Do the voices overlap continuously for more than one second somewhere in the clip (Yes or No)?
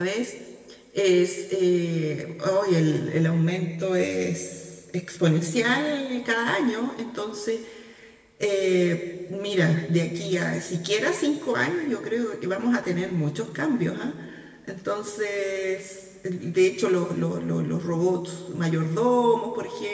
No